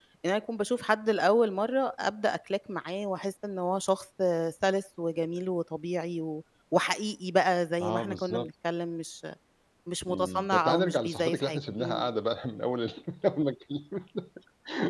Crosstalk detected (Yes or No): Yes